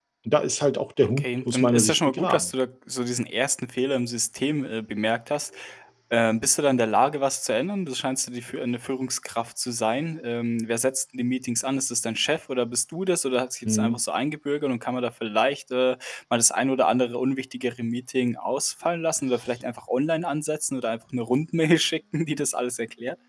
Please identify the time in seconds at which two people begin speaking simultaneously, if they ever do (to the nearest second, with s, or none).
1 s